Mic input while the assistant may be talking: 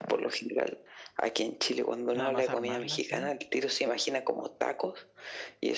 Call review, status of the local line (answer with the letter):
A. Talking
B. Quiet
A